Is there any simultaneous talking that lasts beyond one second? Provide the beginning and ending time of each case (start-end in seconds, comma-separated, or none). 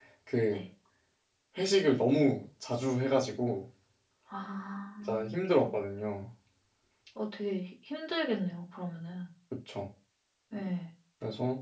none